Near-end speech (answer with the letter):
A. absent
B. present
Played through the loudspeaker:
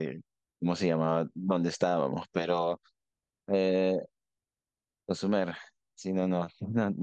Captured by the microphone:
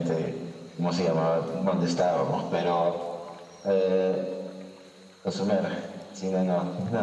A